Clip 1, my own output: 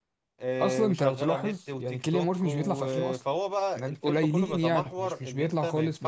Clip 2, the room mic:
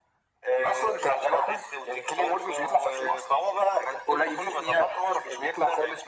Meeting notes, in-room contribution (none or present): none